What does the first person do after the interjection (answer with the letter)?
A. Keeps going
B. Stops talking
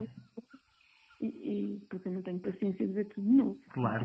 B